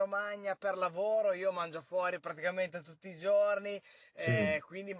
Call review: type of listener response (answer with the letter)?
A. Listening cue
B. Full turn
A